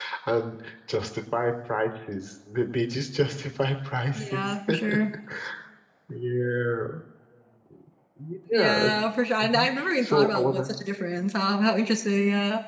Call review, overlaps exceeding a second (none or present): present